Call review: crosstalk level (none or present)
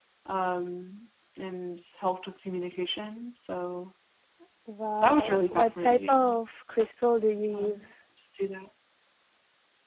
present